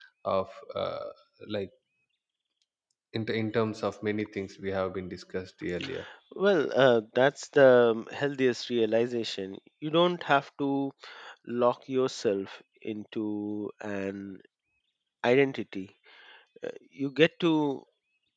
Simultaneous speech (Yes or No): No